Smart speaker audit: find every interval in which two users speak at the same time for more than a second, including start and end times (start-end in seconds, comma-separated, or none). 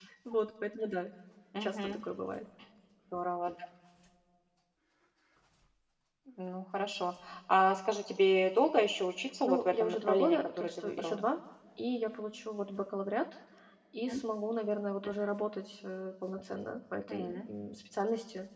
9.4-11.2